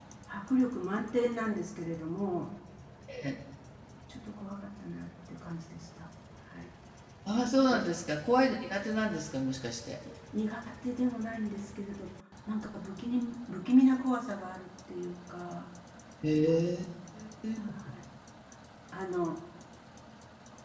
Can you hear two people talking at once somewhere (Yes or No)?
No